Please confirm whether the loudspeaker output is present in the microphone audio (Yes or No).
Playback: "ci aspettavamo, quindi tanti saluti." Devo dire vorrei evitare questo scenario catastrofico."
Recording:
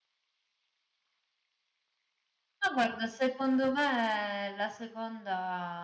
No